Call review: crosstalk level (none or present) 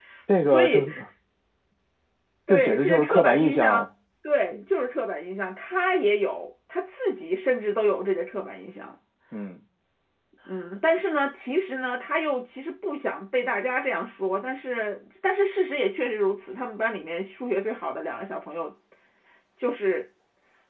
present